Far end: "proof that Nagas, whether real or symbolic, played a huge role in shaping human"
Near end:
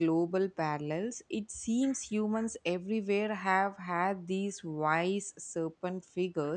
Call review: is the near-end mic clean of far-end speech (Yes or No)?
Yes